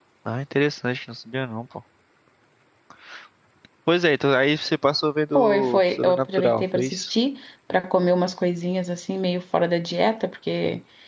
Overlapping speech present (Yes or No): Yes